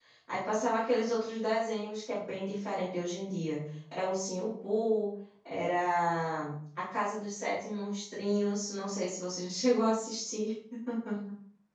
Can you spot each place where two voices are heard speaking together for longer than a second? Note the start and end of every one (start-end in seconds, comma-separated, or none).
none